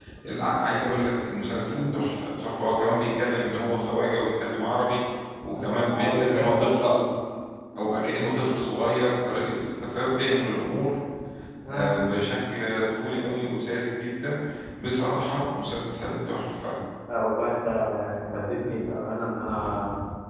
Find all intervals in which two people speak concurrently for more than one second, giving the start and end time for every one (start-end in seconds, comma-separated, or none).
5.6-7.0